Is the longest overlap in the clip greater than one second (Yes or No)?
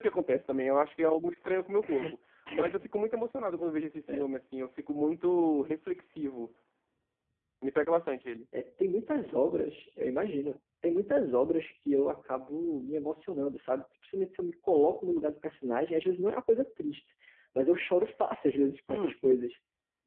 No